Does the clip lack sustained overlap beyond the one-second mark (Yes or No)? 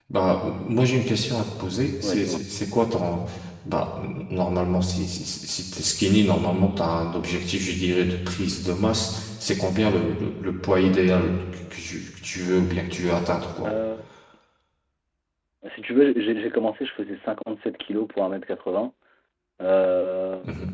Yes